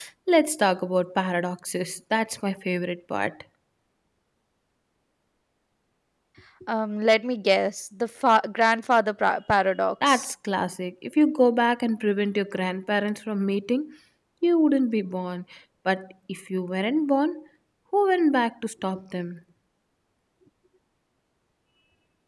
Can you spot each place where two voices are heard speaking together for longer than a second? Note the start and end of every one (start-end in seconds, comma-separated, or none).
none